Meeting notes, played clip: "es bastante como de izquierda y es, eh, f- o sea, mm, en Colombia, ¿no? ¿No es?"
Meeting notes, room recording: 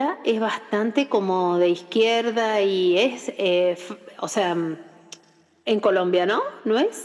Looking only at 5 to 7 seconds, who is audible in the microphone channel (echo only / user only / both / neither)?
echo only